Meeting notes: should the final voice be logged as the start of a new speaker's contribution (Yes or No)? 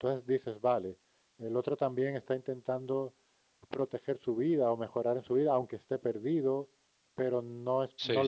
No